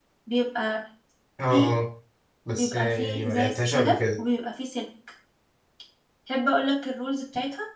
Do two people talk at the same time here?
Yes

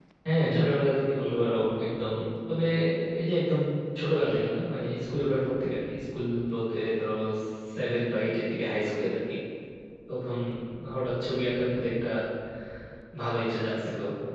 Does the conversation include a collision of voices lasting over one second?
No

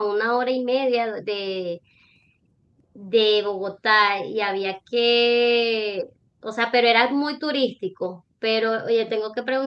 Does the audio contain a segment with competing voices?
No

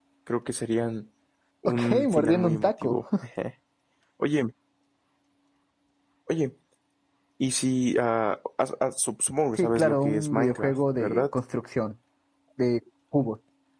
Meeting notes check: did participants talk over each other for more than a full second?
Yes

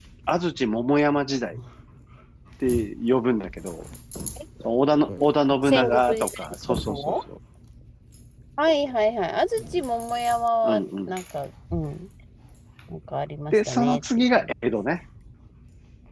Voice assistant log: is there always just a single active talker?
No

